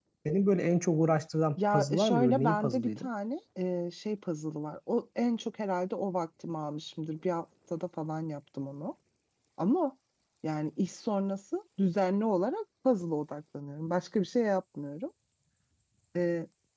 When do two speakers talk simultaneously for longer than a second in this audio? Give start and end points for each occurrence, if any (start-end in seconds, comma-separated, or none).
1.7-3.1